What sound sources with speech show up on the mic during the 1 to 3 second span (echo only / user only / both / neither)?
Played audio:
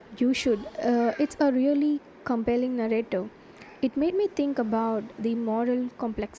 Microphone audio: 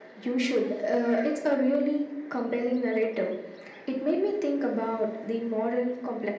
echo only